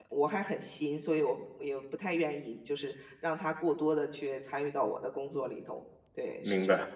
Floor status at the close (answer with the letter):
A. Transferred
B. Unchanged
A